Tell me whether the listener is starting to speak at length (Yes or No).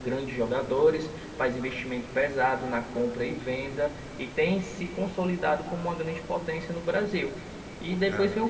No